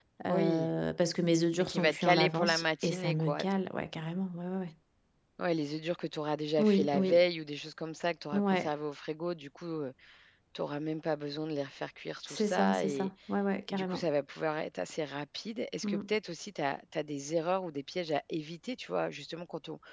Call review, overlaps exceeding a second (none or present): present